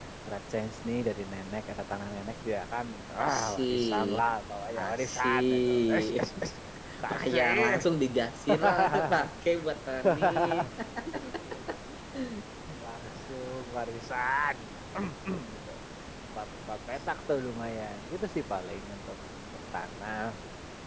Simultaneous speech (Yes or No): Yes